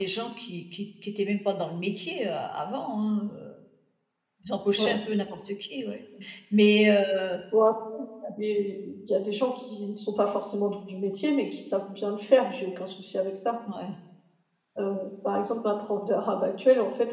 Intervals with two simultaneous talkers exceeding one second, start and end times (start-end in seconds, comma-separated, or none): none